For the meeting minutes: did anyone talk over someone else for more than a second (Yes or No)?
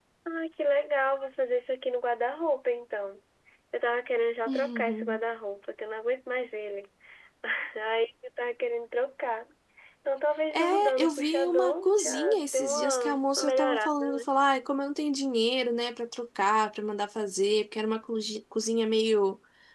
Yes